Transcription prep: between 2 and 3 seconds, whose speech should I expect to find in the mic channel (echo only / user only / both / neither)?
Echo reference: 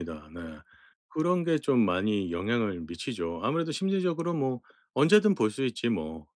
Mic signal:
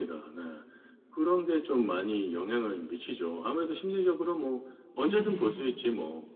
echo only